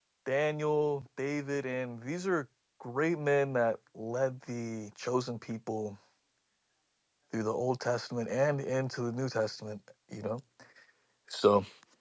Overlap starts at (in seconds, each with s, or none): none